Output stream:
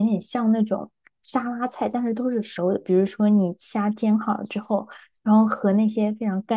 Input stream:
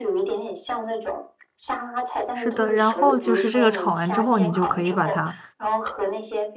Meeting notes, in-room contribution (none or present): present